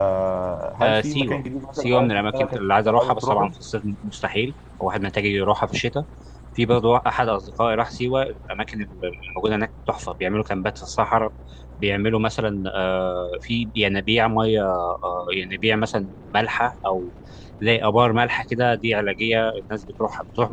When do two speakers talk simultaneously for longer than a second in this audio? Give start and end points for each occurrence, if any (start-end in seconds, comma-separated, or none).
0.8-3.5